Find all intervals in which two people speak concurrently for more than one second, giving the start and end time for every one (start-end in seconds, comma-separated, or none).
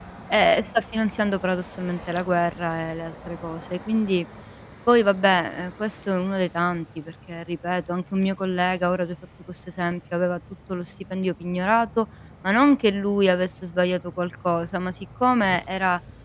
none